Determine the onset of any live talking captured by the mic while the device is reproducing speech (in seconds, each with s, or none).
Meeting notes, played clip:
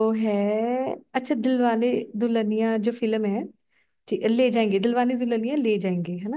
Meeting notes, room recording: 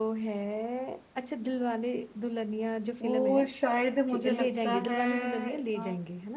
3.0 s